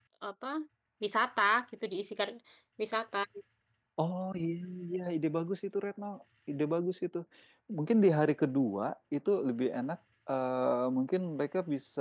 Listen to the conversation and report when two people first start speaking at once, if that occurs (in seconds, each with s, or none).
none